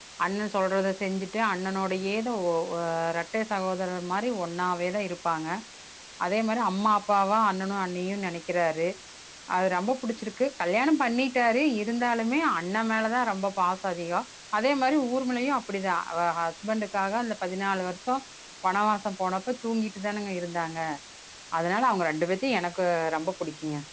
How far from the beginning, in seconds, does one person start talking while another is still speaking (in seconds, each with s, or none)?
none